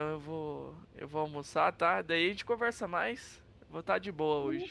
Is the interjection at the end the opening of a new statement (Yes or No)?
Yes